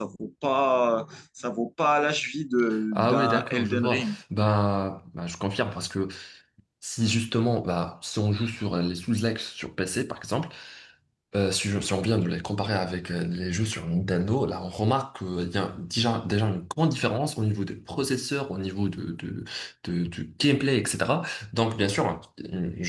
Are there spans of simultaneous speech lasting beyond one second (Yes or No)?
Yes